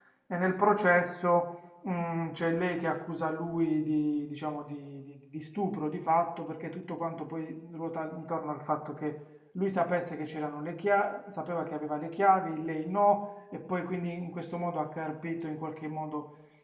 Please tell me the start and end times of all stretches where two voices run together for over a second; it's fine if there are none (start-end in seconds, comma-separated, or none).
none